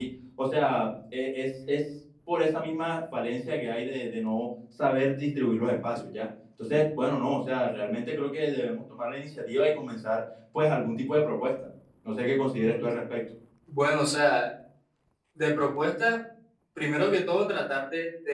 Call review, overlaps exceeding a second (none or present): none